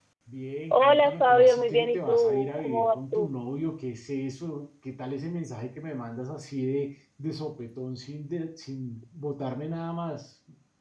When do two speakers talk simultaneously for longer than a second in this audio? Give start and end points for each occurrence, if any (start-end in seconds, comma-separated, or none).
0.7-3.3